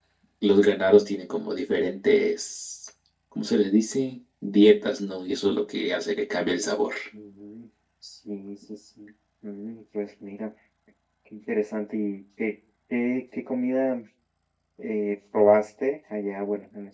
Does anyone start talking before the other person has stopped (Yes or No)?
No